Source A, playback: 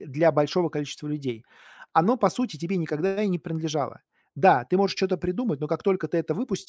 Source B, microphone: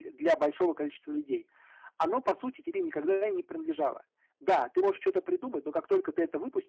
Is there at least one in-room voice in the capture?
No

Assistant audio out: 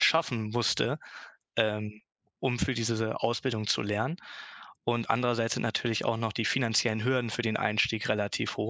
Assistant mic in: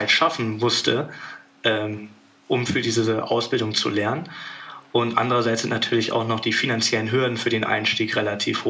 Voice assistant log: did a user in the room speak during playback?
No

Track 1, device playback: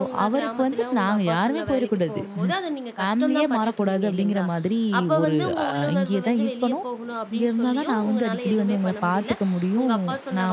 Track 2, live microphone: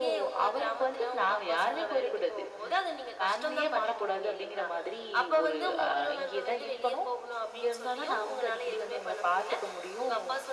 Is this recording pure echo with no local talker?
Yes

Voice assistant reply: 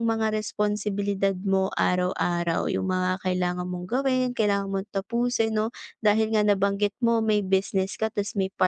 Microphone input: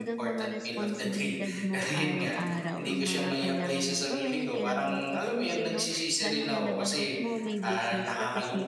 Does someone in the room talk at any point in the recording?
Yes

